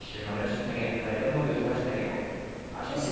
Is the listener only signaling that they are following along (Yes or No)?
No